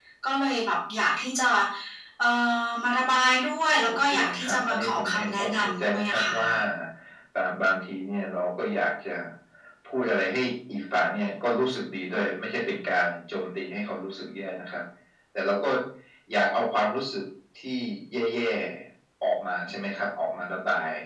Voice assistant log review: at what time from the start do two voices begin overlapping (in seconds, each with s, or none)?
3.9 s